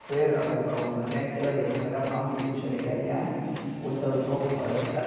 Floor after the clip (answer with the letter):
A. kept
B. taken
A